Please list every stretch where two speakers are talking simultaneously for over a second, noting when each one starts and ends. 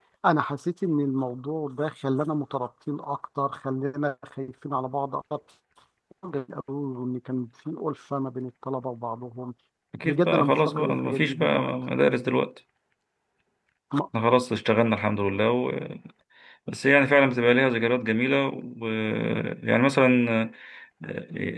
10.0-11.7

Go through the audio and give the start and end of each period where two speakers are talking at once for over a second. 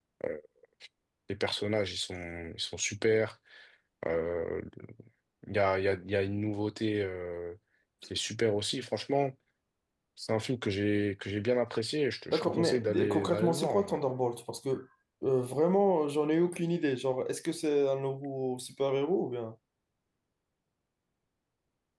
12.3-14.0

